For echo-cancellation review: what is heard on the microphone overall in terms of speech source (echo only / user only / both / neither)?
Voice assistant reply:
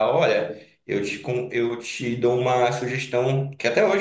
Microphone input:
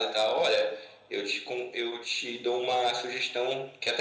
echo only